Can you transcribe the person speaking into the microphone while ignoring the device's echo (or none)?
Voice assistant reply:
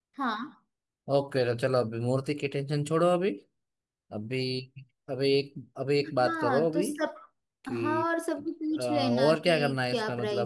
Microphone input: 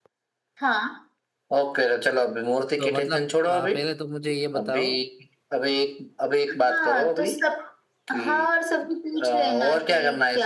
तो मतलब आ, पहले तो मुझे ये बताओ